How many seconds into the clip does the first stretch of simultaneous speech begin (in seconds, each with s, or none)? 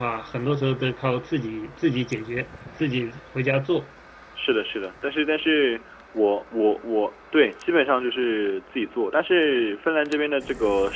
none